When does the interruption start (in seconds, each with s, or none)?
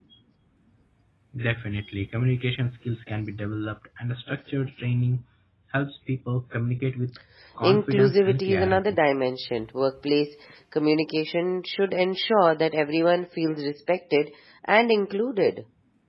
7.6 s